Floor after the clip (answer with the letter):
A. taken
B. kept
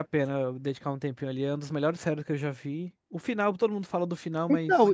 A